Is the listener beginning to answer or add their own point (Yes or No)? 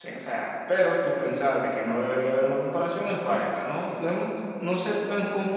No